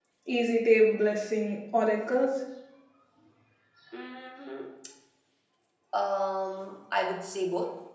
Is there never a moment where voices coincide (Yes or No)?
Yes